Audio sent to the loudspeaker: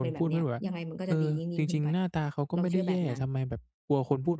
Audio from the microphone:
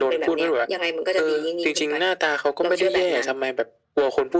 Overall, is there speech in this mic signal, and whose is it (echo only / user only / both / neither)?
echo only